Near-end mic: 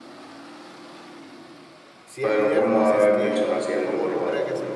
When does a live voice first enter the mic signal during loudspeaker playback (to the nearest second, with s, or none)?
2 s